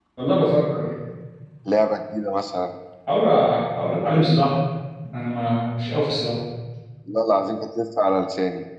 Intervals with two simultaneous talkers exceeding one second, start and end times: none

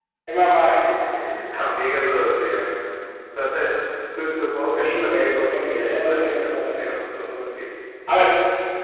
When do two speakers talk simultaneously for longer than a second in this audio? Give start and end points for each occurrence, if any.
4.7-7.3

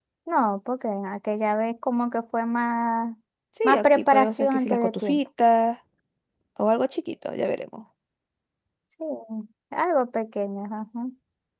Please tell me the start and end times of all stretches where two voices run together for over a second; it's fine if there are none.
3.6-5.2

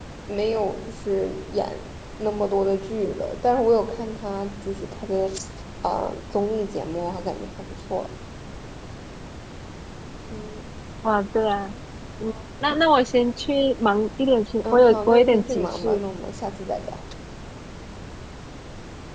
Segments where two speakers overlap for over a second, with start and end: 14.7-16.0

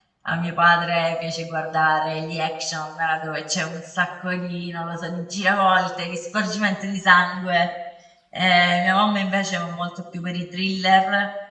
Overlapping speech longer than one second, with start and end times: none

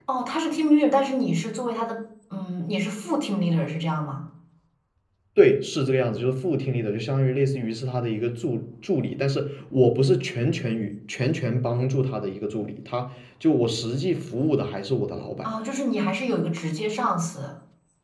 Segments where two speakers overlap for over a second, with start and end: none

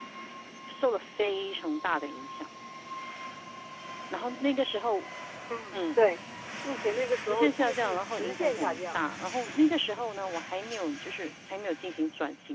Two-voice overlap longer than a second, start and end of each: 7.2-9.0

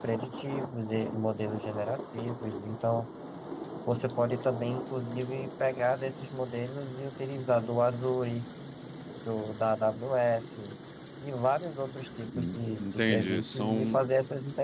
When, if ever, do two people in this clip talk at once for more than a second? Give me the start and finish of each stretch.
12.3-14.0

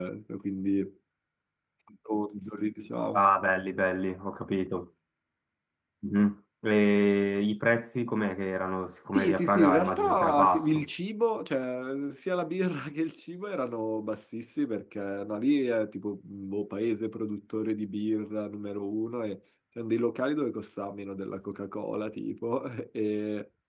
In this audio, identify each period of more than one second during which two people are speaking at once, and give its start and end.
9.1-10.8

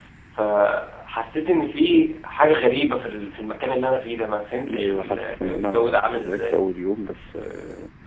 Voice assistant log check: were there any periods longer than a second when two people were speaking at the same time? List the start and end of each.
4.7-6.6

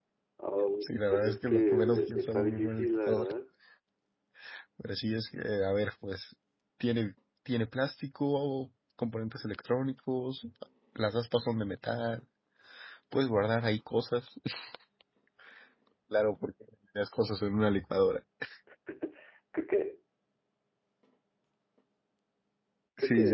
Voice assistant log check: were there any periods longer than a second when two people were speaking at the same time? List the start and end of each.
0.8-3.3

